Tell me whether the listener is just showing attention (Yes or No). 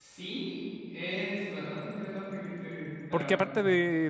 No